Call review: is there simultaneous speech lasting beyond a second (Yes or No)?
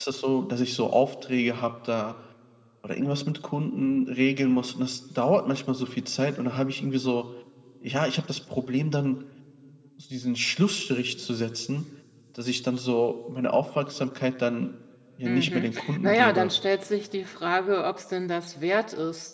Yes